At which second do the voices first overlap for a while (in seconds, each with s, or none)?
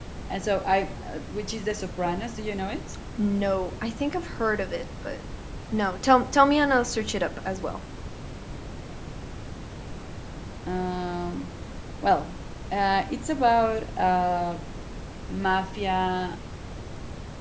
none